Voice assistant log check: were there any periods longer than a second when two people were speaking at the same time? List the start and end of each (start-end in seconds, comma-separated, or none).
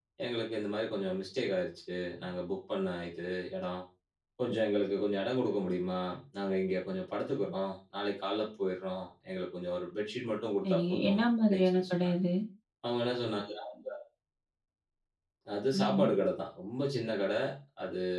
10.6-12.1